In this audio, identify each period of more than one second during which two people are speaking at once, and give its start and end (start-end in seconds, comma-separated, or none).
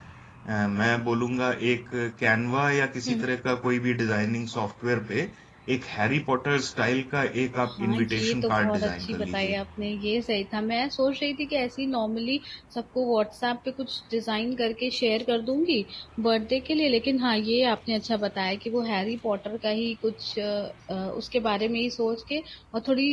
7.7-9.6